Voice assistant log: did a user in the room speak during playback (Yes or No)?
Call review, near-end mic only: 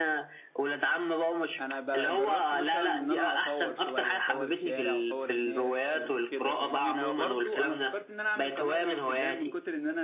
Yes